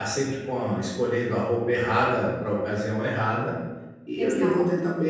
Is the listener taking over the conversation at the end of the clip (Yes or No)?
No